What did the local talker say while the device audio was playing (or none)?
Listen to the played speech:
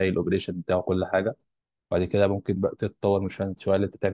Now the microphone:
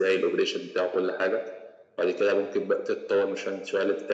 none